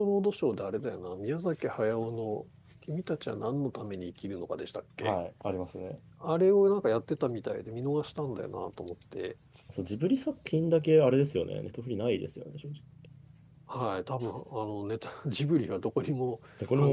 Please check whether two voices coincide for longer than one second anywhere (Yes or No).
No